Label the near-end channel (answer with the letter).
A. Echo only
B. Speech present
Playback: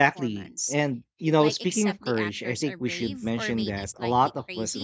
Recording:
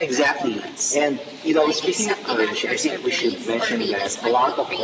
A